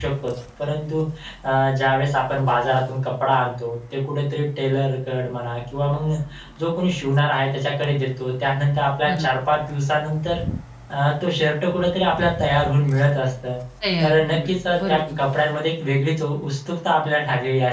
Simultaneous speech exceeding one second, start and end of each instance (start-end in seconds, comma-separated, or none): 14.0-15.2